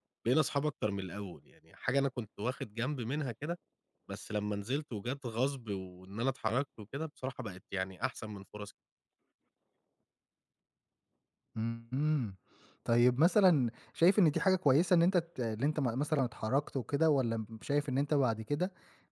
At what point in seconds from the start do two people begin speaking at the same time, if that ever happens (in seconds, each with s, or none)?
none